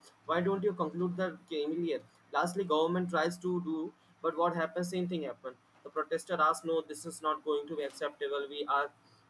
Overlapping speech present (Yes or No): No